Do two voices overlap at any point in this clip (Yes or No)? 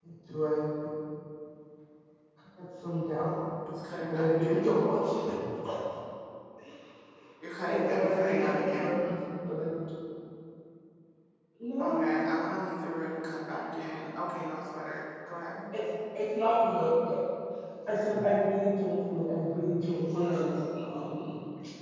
Yes